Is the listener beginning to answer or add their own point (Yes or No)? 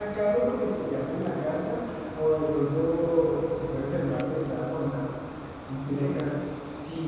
No